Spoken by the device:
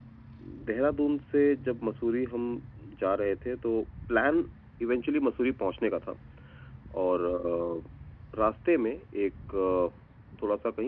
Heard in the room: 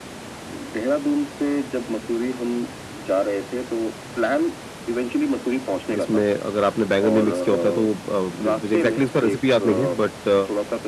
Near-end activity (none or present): present